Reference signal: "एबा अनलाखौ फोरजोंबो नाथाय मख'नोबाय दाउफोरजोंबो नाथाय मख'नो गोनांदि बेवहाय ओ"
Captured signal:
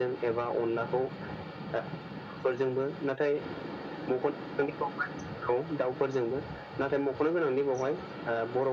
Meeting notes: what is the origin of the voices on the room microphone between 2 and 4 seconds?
echo only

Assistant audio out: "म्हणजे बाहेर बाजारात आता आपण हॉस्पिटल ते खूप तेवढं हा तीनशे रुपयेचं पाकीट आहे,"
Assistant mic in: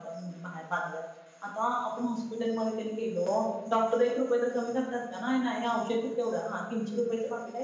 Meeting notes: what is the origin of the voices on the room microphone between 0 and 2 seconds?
echo only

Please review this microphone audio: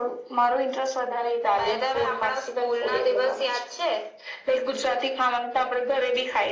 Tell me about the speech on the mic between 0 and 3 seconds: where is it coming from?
echo only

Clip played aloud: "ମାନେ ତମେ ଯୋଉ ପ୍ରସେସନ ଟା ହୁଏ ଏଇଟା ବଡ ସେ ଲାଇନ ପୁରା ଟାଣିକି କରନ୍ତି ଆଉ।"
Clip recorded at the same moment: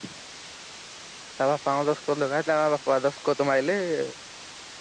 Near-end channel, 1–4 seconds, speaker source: user only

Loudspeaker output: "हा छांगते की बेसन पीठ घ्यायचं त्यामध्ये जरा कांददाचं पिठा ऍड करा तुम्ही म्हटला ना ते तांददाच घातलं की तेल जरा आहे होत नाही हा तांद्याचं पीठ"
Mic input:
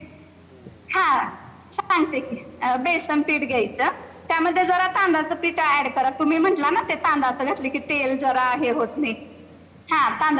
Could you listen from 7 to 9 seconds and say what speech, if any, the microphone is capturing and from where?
echo only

